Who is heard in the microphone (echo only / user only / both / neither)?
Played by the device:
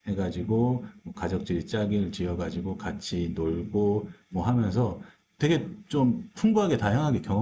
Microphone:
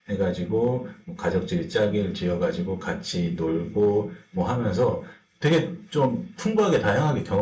echo only